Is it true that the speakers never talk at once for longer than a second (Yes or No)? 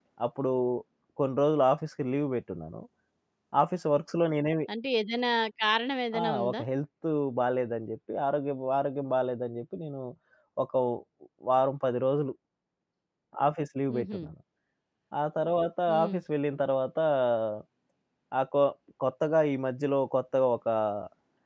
Yes